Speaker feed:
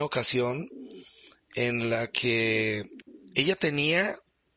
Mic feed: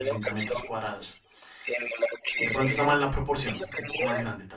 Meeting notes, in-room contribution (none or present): present